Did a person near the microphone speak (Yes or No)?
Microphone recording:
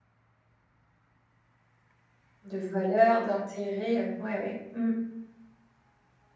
Yes